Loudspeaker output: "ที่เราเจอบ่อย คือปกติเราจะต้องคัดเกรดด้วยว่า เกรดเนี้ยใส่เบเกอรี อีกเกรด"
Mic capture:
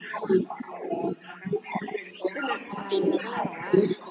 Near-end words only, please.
จะหนักไป เราก็เลยแบบว่า

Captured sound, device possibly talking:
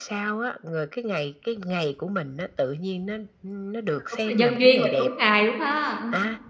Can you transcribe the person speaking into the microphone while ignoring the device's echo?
ờ, đúng là nhân duyên và đúng ngày luôn ha, ờ.

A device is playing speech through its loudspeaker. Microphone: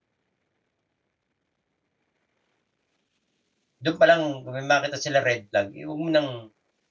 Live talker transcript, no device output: do'n pa lang 'pag may makita sila red flag, eh, huwag mo ng

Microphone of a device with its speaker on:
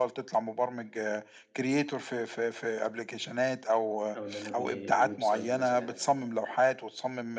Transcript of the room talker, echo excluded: أو إن أنا أبني website مثلًا

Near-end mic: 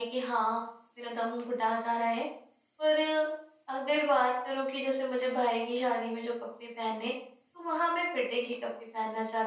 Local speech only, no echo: none

